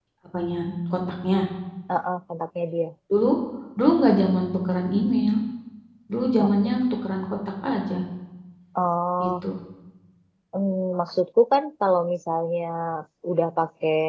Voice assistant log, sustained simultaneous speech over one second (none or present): none